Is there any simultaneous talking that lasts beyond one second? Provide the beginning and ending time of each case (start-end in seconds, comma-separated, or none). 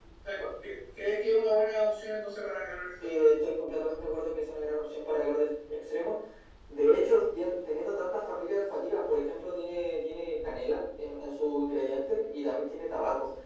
none